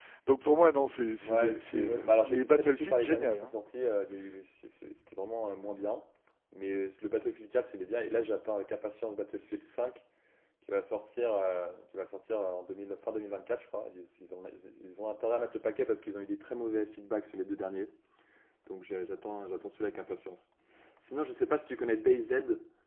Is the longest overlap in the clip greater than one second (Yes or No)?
Yes